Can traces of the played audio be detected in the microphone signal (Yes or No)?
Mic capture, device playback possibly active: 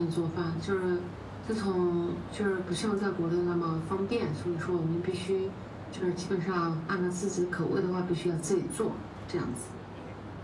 Yes